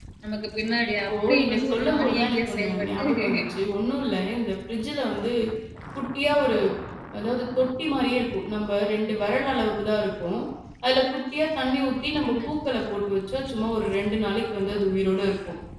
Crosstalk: present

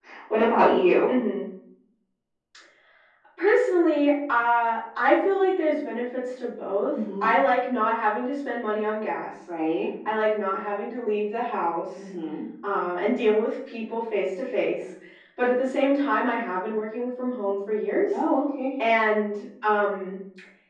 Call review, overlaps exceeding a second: none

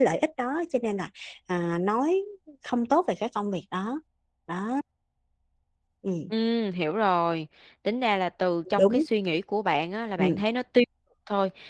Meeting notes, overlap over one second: none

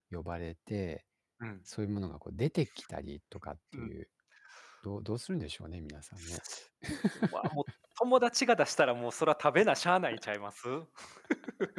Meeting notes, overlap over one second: none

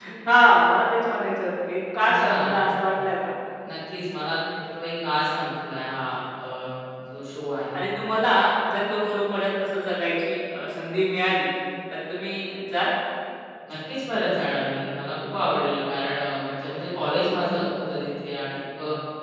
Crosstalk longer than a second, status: none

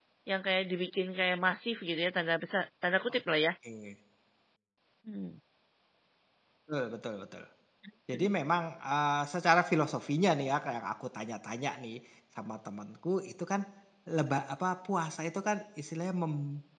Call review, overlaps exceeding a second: none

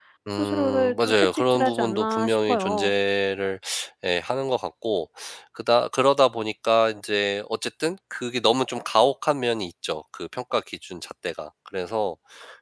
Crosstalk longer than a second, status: present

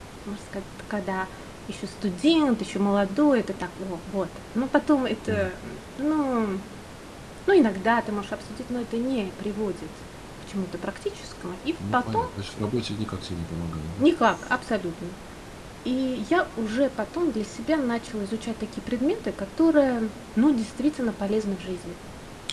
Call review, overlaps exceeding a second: none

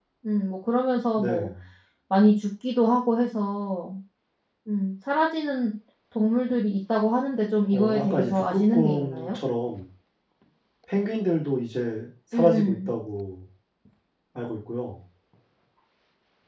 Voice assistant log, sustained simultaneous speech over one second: present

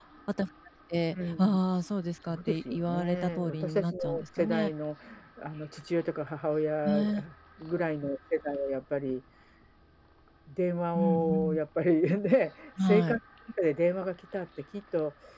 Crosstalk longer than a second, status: present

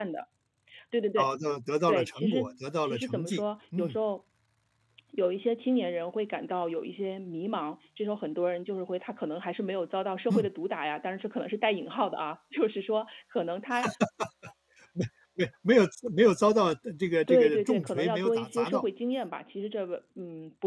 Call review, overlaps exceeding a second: present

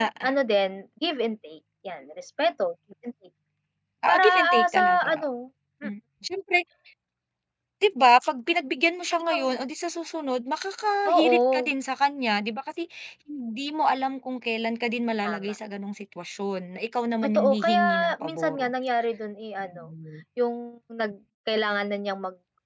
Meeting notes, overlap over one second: present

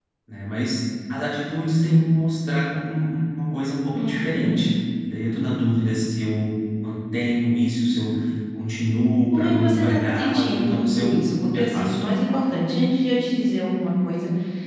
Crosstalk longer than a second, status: present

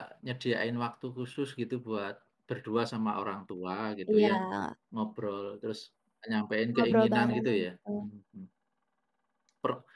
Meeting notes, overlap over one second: present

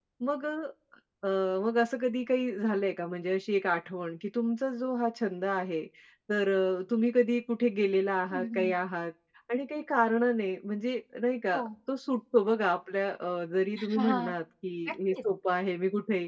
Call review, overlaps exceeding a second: none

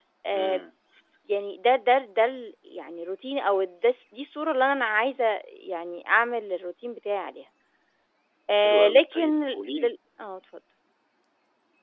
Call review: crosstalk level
present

